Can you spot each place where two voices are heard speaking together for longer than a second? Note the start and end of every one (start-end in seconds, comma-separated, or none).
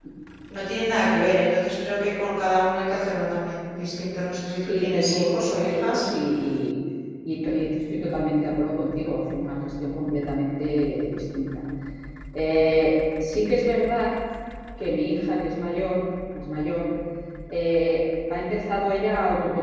4.6-6.1